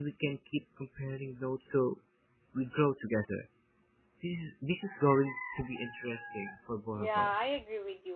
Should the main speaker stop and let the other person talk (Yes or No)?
Yes